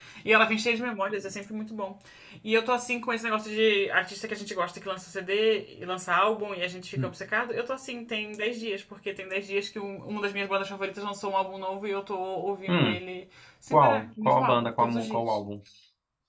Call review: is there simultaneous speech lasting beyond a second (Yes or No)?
Yes